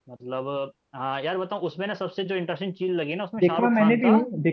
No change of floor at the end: No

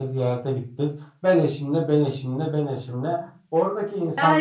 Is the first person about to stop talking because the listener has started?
Yes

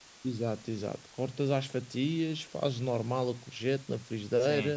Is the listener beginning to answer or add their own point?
No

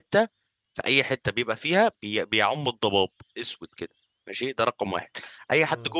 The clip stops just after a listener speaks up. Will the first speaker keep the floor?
Yes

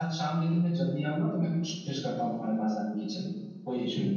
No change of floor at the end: No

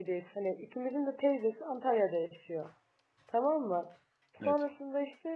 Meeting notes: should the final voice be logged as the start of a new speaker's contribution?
No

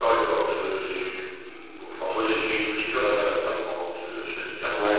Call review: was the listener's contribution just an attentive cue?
No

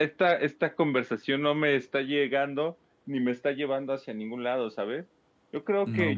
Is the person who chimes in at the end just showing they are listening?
Yes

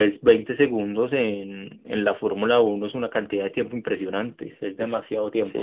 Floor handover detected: Yes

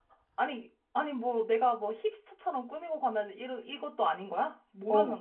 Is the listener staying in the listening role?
No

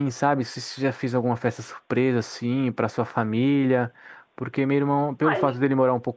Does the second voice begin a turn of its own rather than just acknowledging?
No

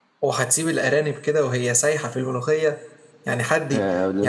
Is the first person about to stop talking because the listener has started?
Yes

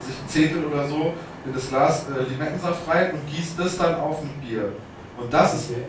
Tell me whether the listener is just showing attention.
Yes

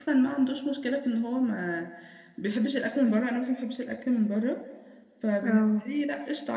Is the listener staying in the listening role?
Yes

